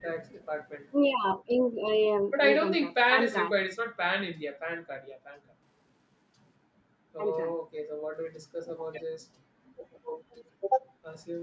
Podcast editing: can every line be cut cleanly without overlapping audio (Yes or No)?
No